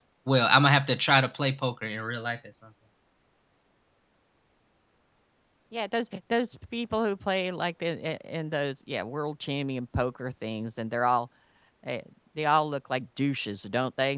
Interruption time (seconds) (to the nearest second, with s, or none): none